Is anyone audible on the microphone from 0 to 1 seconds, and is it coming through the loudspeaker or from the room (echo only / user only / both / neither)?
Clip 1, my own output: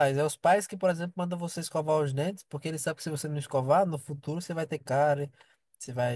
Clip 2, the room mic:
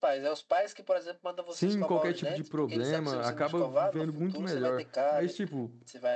echo only